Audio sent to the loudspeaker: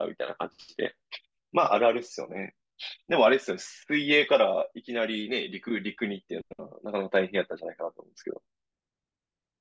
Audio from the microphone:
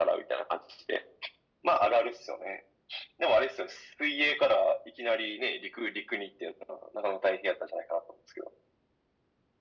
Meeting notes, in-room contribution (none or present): none